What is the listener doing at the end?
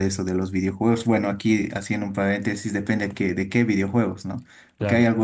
listening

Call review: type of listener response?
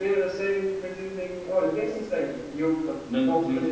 taking over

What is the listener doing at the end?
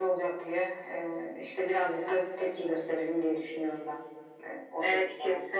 taking over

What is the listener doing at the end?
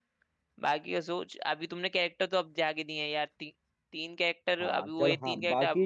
taking over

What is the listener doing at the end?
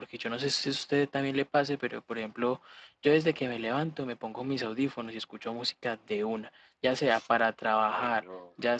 listening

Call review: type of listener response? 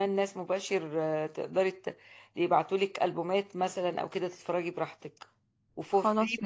listening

